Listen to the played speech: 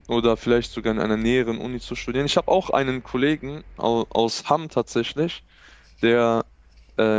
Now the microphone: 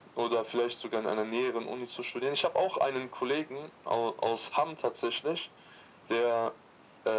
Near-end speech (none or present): none